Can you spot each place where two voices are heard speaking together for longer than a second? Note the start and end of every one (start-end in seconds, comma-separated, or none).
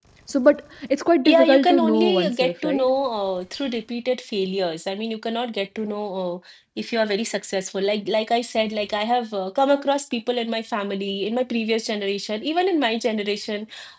1.2-2.9